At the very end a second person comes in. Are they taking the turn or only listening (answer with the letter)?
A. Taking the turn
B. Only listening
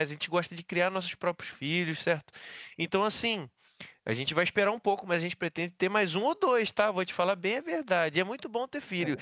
B